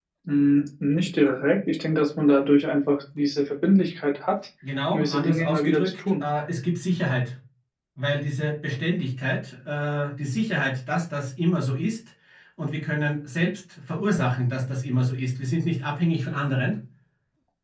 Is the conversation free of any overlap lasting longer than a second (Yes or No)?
No